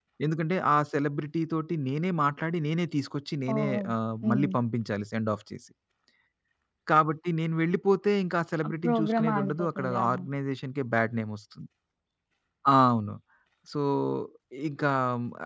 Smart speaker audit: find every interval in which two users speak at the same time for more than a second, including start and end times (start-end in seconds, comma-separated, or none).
8.7-10.2